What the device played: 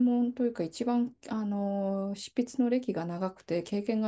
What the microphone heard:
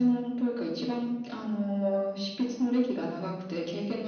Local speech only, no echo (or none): none